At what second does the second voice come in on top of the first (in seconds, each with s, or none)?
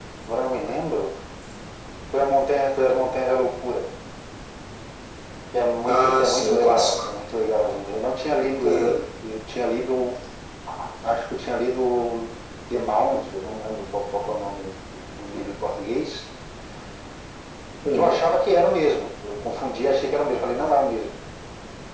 5.8 s